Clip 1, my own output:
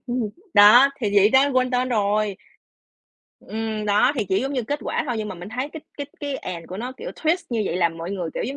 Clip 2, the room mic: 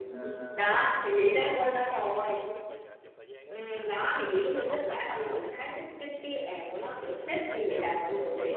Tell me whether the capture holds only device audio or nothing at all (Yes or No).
No